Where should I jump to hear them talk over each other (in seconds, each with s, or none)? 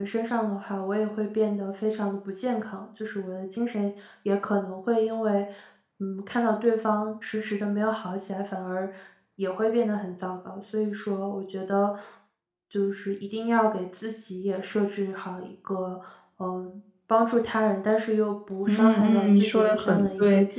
18.7 s